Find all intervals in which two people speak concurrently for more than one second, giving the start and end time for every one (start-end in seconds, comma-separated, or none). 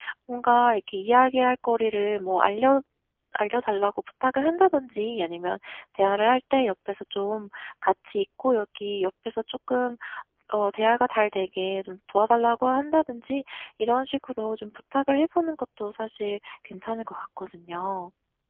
none